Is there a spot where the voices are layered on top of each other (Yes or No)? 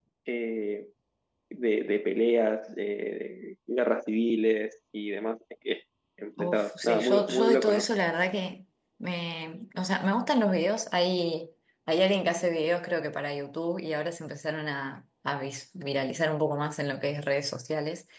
Yes